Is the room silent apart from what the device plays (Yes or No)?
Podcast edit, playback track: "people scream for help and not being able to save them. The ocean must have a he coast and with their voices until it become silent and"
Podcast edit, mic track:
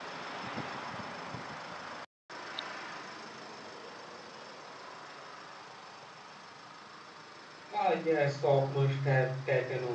No